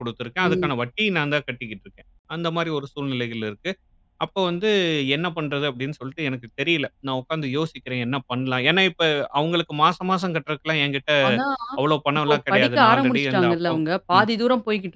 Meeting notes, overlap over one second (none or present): present